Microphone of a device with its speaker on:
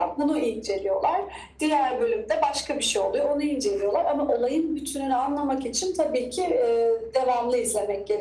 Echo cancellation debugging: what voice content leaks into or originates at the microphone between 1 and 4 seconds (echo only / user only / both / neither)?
echo only